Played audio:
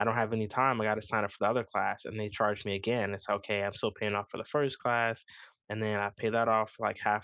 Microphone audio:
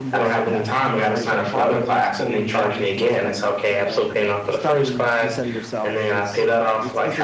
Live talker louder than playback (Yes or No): No